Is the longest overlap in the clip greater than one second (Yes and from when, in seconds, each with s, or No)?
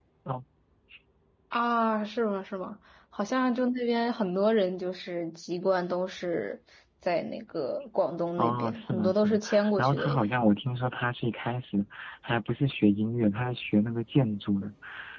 Yes, from 8.4 s